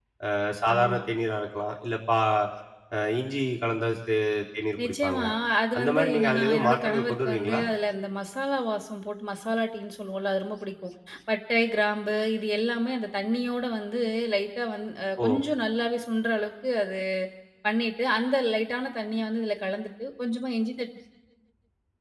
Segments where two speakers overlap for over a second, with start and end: 5.8-7.6

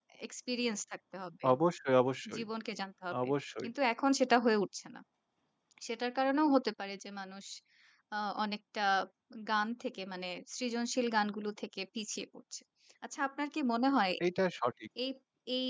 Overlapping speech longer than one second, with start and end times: none

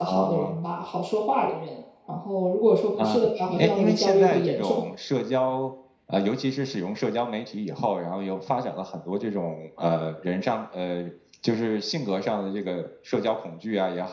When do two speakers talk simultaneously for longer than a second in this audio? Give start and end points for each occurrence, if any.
3.0-4.8

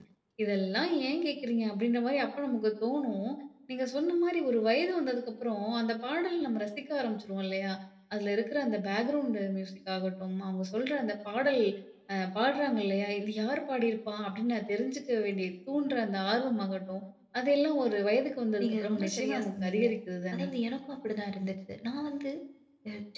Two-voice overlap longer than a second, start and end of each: 18.6-19.8

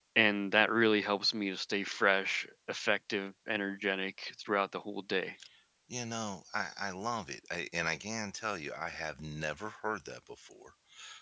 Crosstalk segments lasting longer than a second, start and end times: none

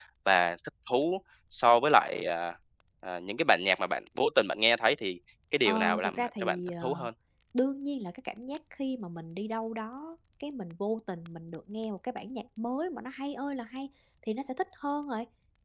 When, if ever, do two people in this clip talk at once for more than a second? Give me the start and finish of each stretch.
5.7-6.9

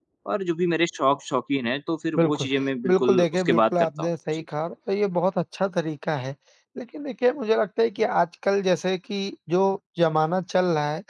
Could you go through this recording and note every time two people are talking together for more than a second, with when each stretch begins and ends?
2.9-4.4

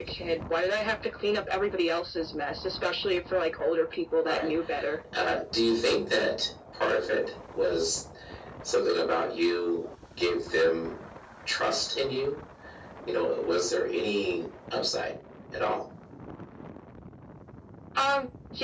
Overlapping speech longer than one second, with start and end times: none

